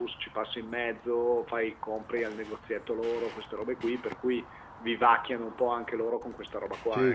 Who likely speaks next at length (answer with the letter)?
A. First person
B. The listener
B